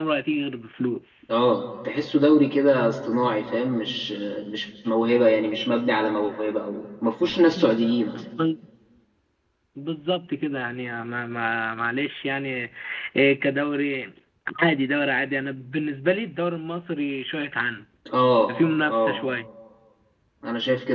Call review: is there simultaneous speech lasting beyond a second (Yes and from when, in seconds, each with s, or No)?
No